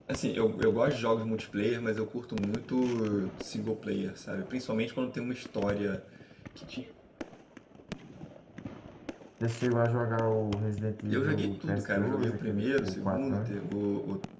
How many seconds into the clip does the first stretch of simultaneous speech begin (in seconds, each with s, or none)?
11.1 s